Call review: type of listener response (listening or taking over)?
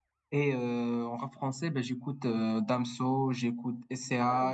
listening